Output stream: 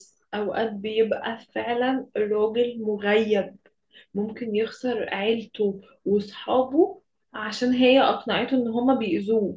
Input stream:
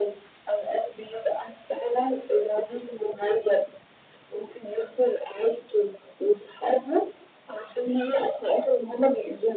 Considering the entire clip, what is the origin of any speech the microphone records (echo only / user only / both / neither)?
echo only